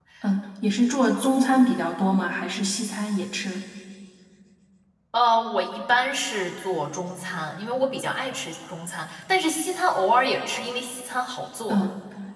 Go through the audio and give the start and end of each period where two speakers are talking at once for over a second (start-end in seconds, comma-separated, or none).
none